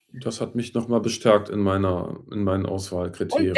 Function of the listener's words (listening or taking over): taking over